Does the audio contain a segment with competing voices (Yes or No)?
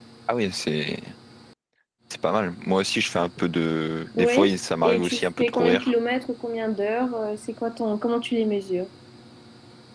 Yes